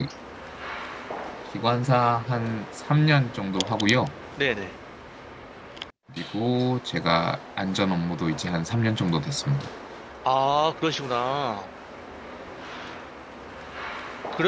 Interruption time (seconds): none

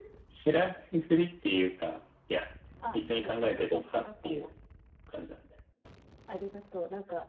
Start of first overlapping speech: 2.9 s

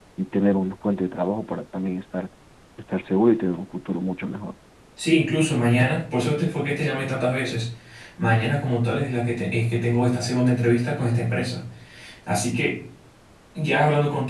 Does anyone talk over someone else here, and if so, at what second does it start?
none

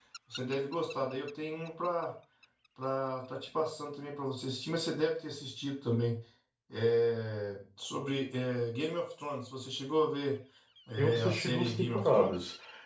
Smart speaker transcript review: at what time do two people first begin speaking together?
11.0 s

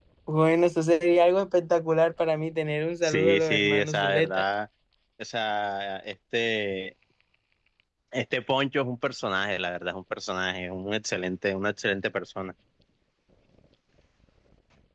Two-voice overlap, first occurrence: 3.0 s

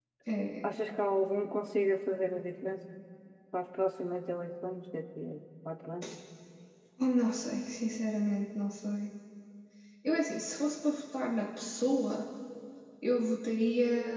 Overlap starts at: none

